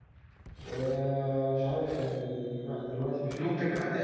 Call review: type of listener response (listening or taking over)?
taking over